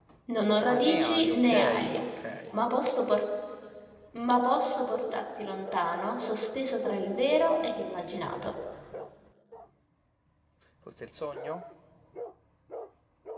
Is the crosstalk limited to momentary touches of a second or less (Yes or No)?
No